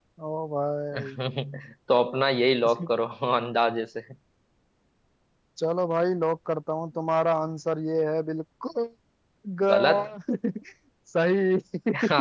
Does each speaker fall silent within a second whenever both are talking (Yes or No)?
Yes